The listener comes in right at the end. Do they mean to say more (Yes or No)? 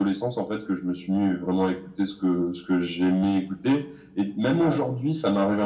No